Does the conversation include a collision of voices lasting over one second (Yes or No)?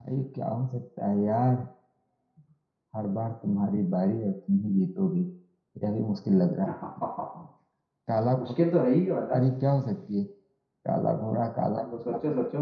No